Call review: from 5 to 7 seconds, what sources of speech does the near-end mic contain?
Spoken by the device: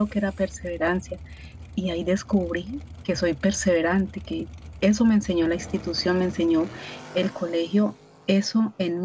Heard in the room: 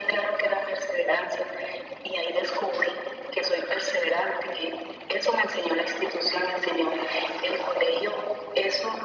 echo only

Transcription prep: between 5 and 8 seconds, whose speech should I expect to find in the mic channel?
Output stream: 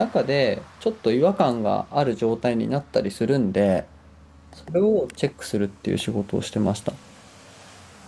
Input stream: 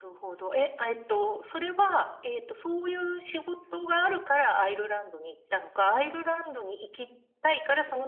user only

